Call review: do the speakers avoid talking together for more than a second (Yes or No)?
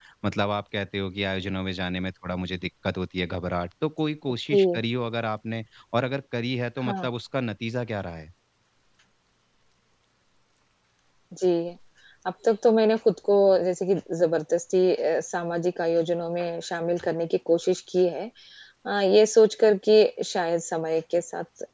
Yes